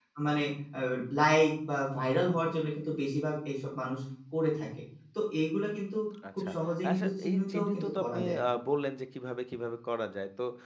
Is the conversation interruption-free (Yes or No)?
No